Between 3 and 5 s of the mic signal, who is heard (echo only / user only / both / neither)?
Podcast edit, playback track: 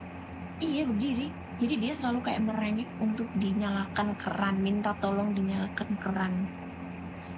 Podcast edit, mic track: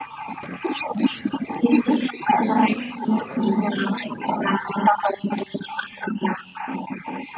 both